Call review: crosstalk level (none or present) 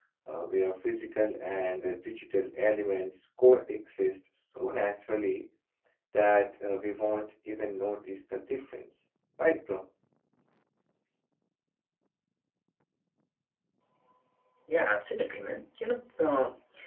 none